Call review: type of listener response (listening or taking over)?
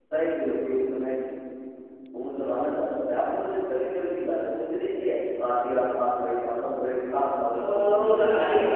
taking over